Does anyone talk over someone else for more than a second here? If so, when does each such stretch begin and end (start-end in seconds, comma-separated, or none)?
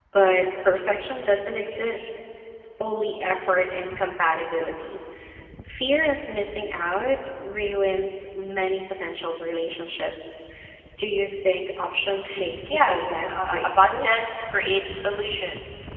12.7-14.1